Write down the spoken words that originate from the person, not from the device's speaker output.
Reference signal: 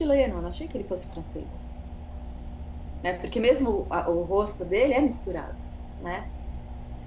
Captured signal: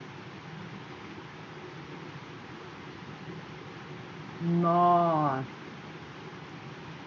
Nossa.

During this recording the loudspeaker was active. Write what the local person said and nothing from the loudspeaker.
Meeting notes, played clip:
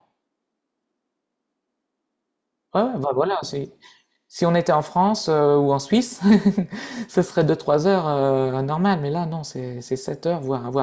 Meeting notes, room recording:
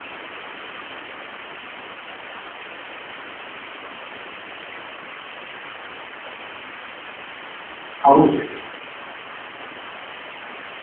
Ah oui, c'est

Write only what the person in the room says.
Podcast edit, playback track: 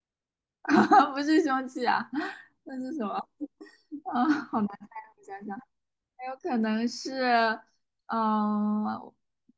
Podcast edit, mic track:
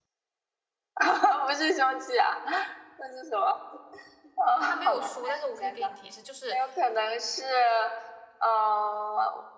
他没有说，但是我可以给你提示，就是

